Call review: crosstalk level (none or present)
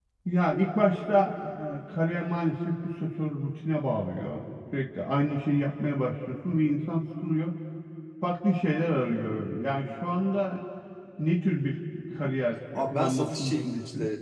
present